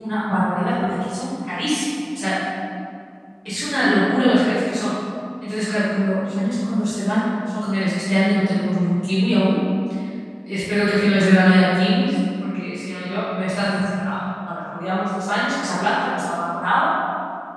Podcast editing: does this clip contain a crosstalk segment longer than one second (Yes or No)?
No